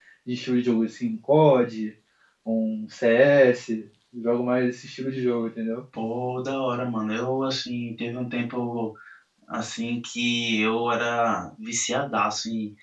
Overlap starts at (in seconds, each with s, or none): none